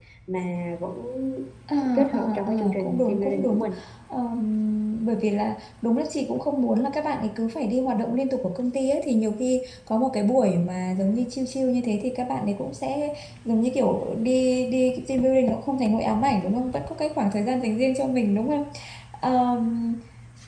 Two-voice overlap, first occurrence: 2.1 s

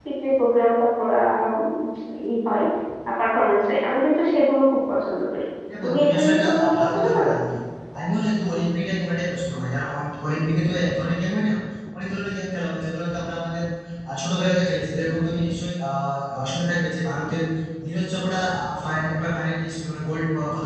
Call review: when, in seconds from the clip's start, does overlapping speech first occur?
5.8 s

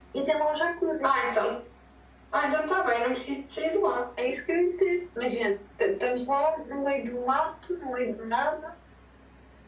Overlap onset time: none

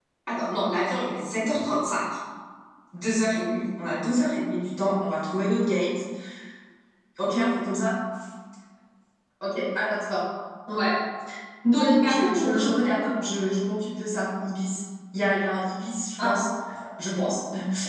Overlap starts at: 11.7 s

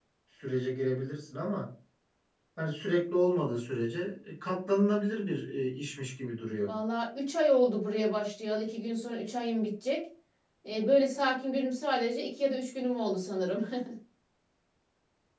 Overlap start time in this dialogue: none

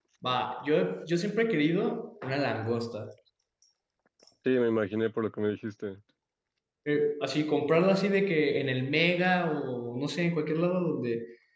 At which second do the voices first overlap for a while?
none

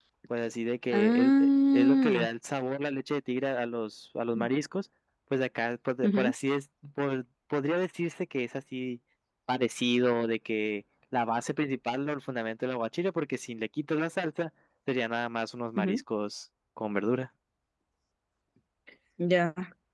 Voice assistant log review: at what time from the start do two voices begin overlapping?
0.9 s

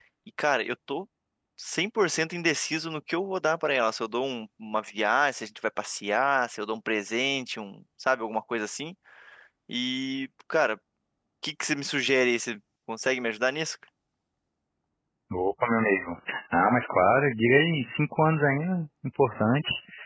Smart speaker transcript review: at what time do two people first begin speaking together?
none

